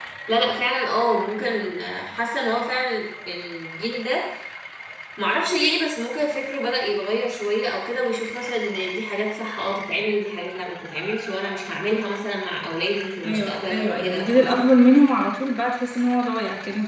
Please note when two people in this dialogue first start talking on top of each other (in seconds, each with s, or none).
13.2 s